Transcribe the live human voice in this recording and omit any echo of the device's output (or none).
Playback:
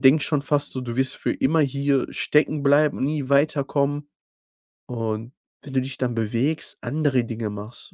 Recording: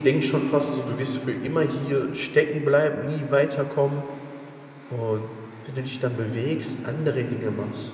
none